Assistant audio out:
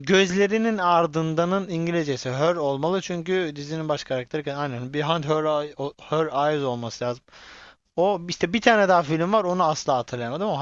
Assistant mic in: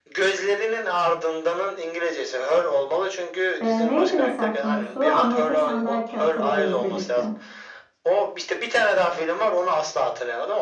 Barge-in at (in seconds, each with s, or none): 3.6 s